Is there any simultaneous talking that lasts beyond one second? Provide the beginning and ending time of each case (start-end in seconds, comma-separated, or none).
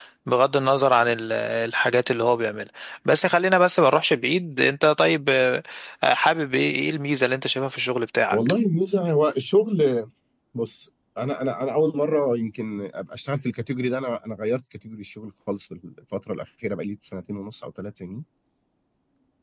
none